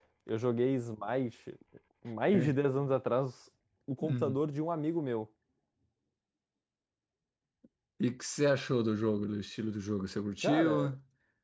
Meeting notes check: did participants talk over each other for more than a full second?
No

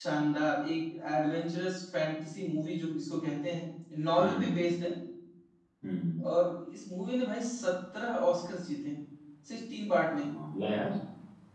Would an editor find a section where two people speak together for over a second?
No

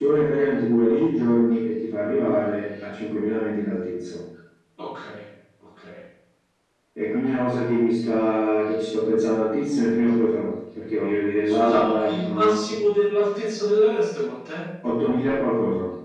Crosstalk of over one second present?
Yes, from 11.4 s

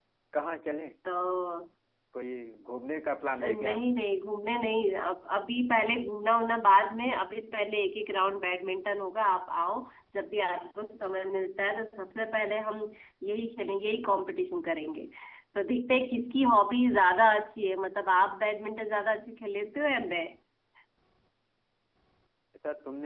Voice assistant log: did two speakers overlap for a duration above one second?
No

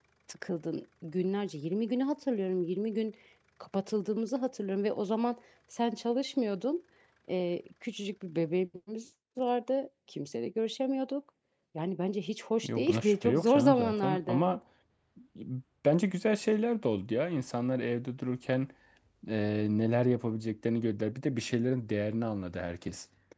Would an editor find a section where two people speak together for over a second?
Yes, from 12.6 s

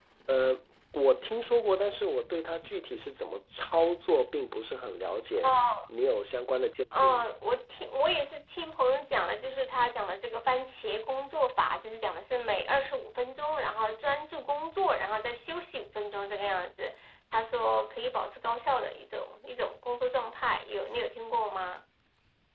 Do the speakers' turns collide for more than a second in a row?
No

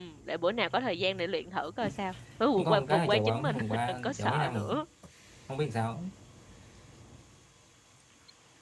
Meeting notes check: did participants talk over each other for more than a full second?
Yes, from 2.6 s

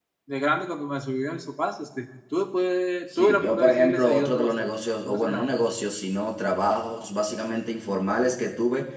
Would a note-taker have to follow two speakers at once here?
Yes, from 3.1 s

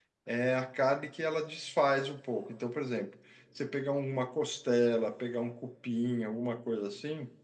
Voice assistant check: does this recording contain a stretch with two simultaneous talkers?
No

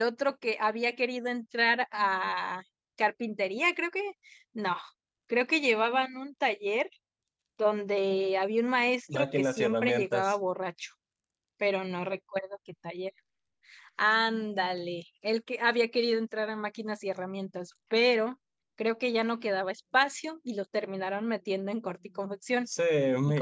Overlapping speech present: Yes, from 9.1 s

